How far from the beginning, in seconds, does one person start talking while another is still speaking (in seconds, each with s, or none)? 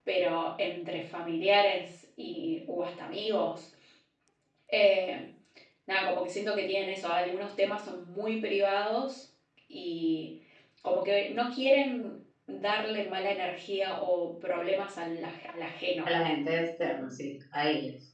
none